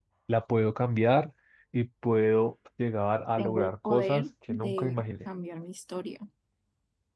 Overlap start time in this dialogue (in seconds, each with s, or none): 3.4 s